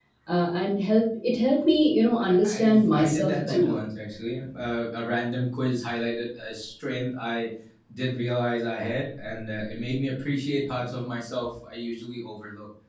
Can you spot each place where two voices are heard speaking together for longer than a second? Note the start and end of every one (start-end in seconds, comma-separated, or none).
2.2-3.8